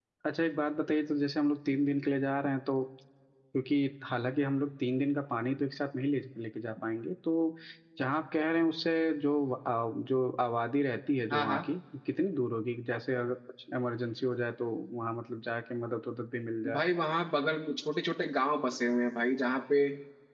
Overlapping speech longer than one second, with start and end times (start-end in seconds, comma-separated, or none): none